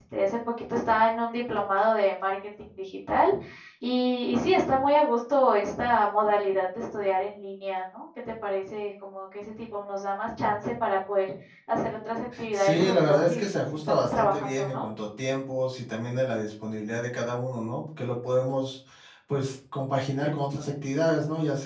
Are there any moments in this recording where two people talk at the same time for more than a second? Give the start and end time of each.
12.5-14.8

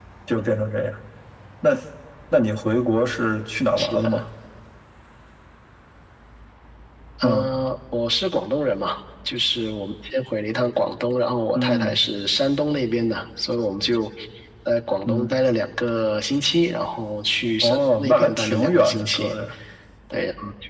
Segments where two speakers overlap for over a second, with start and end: 17.6-19.3

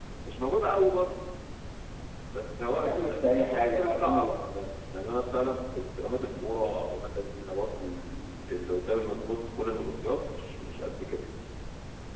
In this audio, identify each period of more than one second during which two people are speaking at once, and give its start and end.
2.8-4.5

